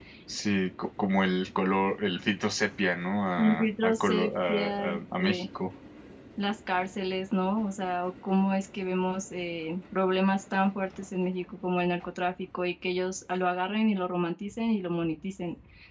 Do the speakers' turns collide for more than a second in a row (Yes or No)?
Yes